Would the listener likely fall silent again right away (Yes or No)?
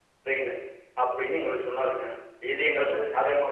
Yes